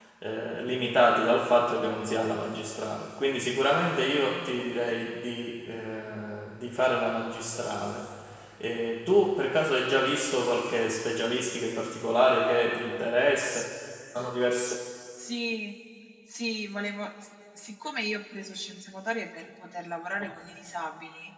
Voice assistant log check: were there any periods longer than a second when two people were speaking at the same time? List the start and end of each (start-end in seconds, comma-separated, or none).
none